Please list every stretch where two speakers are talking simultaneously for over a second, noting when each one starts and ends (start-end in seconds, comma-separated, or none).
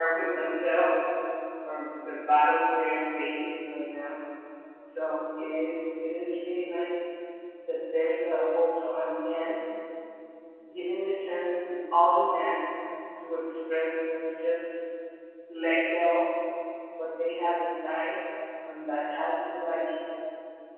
none